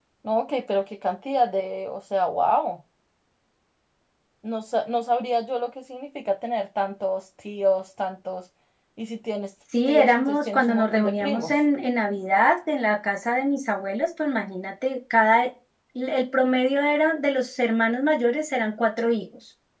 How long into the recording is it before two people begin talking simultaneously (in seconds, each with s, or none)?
9.8 s